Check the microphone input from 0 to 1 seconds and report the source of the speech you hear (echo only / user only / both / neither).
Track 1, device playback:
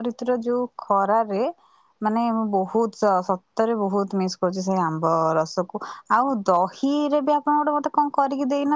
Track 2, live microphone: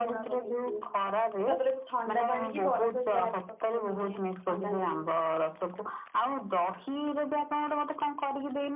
both